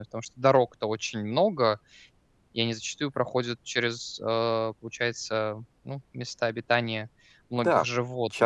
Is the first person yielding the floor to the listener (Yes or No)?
Yes